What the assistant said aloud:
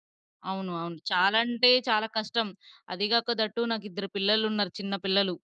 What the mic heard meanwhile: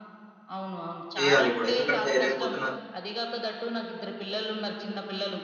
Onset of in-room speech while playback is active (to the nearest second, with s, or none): 1 s